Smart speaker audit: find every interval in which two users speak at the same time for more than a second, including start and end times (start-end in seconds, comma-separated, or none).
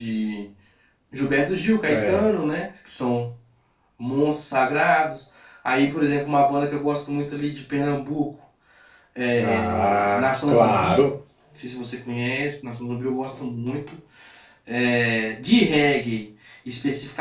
9.4-11.0